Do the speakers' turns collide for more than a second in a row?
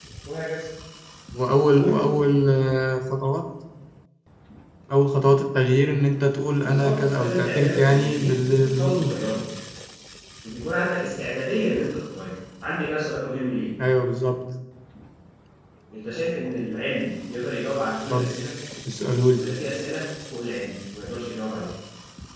Yes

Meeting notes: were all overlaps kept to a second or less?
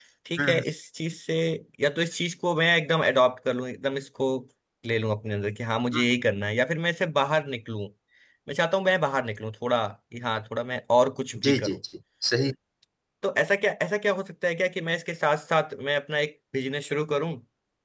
Yes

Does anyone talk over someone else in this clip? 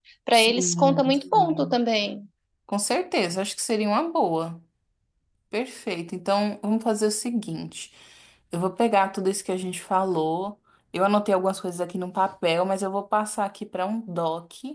Yes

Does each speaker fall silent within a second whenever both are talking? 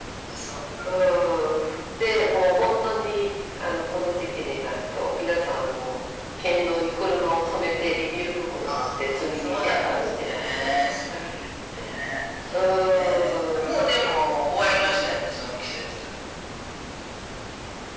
No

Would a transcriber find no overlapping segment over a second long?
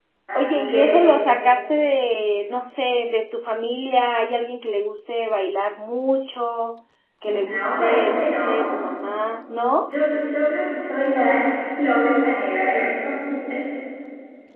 No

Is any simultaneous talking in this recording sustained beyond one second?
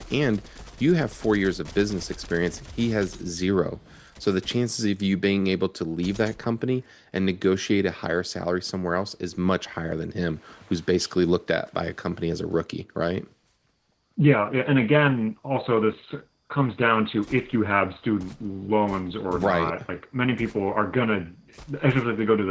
No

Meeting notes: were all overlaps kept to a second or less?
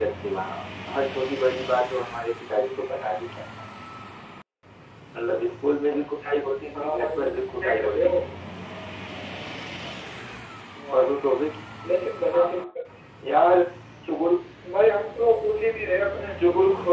No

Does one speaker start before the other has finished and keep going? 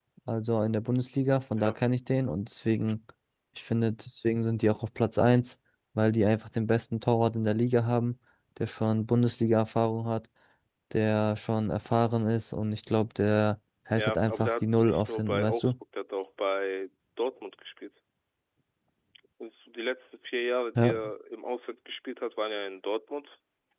Yes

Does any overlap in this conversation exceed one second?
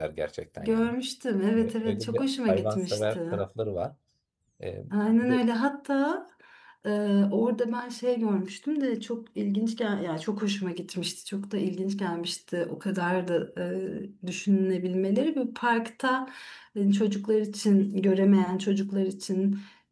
Yes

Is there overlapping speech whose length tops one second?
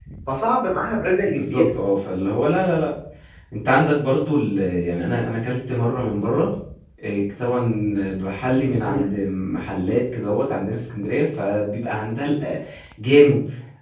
No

